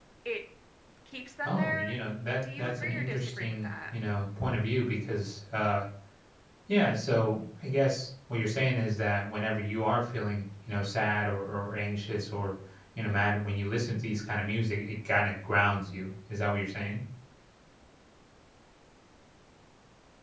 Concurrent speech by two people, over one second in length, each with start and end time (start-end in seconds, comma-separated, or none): 2.6-3.9